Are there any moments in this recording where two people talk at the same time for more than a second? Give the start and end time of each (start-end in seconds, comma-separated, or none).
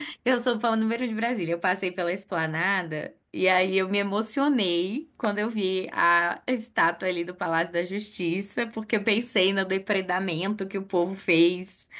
none